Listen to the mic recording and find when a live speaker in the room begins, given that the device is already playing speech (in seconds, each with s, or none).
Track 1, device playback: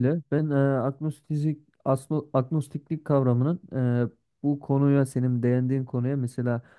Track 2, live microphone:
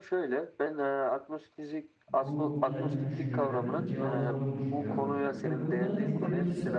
2.1 s